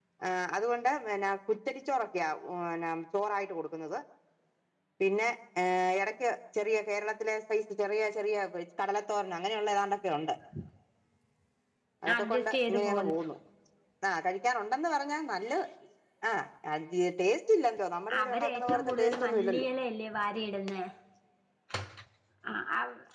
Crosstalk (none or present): present